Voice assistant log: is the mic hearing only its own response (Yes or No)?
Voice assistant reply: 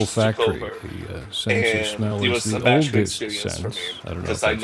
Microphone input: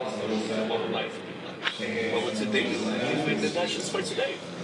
No